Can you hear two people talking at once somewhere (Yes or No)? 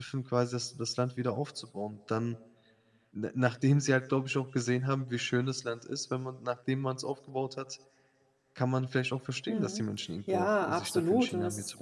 Yes